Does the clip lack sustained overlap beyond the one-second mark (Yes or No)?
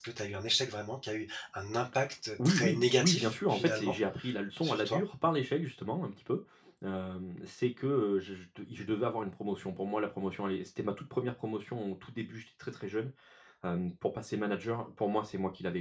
No